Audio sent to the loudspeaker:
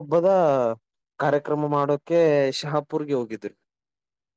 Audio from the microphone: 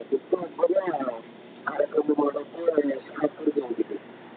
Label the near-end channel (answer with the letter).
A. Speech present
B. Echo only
B